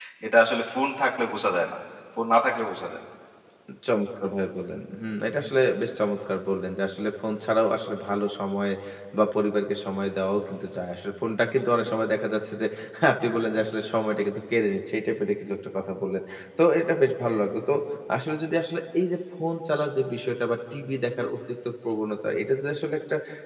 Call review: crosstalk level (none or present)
none